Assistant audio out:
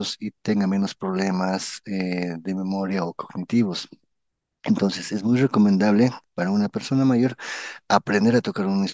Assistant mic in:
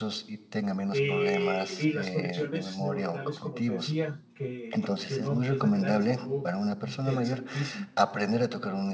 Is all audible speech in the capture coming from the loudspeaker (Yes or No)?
No